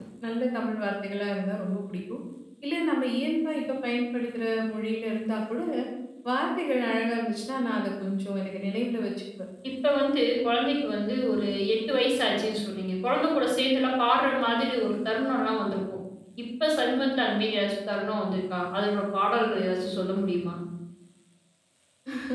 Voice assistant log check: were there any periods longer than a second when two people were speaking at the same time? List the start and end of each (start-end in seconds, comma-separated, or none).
none